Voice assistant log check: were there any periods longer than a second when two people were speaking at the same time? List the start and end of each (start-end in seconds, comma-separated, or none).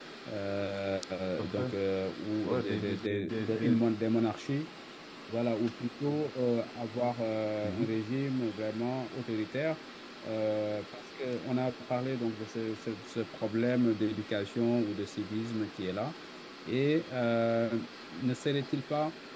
2.4-3.8